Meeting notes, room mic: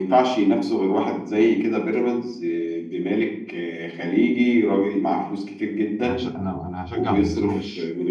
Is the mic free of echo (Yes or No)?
No